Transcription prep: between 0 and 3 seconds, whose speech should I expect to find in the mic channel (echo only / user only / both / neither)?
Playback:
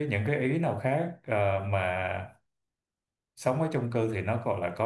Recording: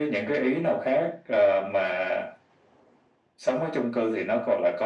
echo only